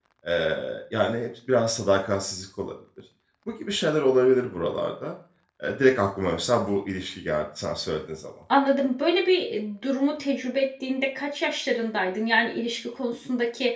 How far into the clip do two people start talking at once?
none

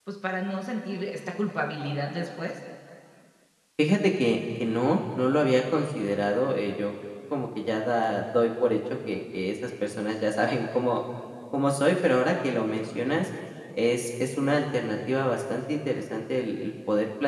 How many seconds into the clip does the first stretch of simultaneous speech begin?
none

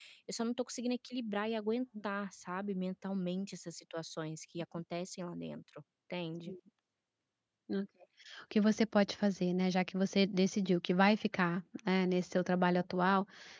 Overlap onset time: none

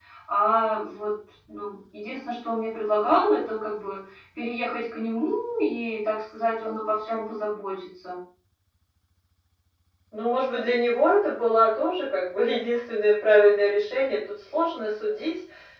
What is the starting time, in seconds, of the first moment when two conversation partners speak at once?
none

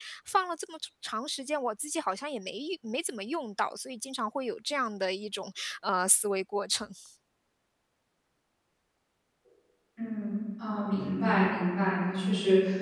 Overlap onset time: none

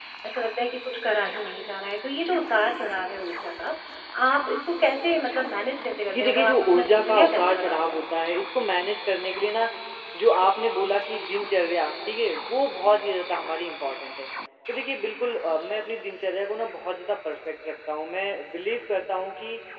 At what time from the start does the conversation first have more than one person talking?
6.1 s

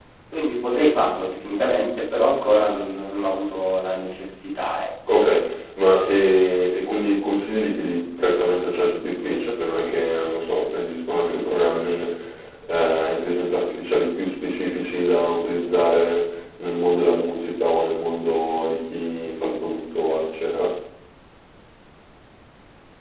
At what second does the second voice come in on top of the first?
none

